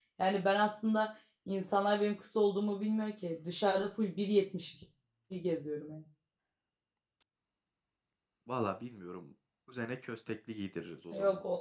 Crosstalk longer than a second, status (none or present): none